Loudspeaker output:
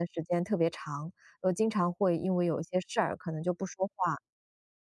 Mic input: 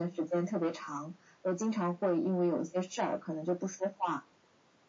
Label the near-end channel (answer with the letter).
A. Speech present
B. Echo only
B